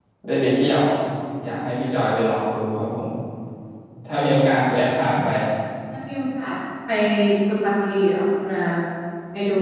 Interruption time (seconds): none

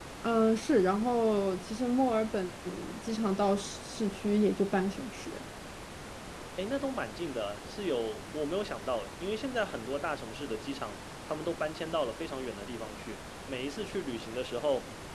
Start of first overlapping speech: none

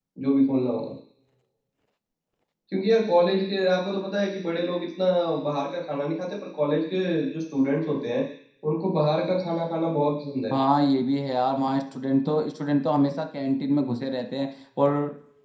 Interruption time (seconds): none

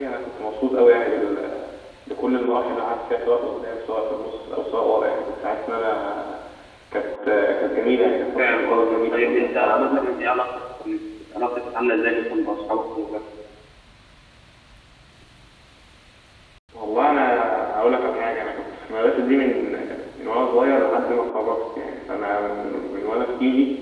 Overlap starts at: 8.4 s

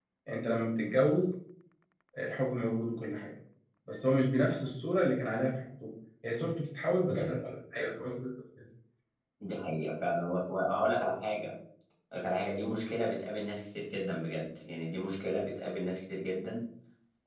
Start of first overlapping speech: none

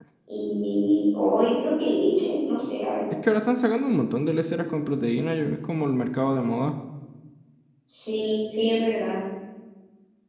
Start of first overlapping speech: none

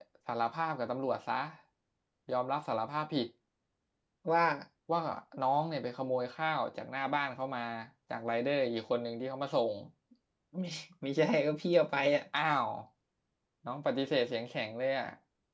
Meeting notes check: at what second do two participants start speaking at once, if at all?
none

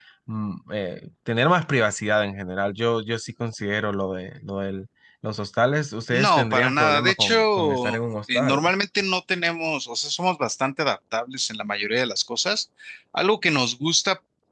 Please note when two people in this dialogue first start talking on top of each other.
6.1 s

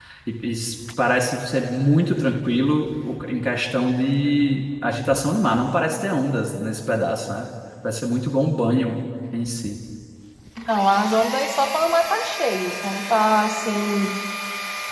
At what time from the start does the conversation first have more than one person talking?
none

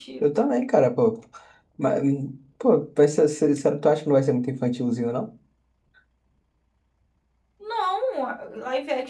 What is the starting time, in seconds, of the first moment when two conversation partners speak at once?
none

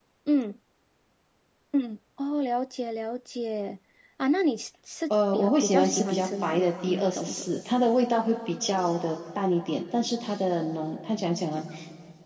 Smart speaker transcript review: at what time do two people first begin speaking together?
5.1 s

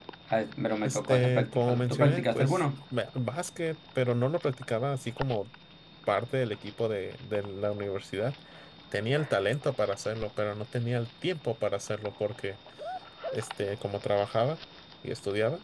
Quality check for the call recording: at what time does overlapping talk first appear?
0.8 s

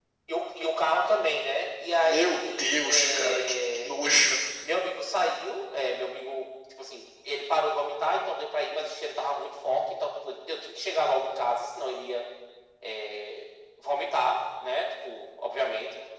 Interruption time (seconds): 2.0 s

